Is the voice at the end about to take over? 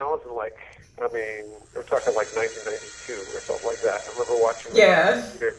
No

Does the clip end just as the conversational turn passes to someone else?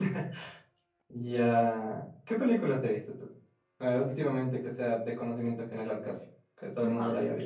Yes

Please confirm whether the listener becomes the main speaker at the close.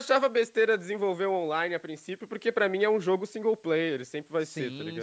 Yes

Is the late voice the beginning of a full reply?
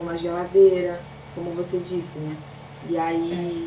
No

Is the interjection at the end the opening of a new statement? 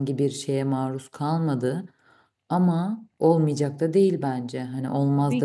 Yes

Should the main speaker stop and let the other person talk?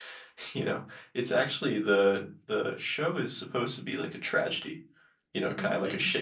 No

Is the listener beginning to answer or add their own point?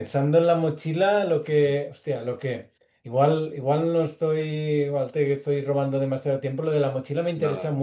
No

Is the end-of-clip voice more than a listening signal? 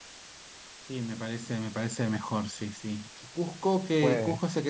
No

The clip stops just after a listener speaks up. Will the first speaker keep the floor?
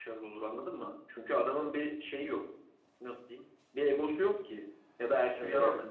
Yes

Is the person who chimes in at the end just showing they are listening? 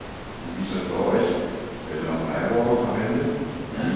No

